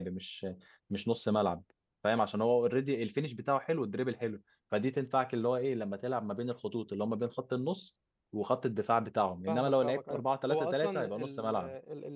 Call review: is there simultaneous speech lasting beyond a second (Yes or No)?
Yes